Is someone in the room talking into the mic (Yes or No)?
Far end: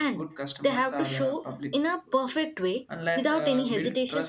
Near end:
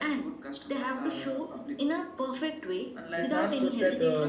Yes